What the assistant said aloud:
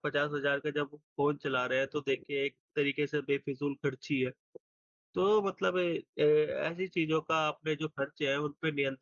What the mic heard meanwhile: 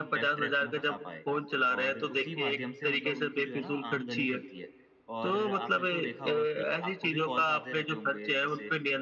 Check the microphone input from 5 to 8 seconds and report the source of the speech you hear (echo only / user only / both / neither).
both